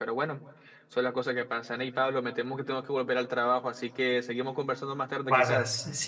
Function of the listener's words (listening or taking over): taking over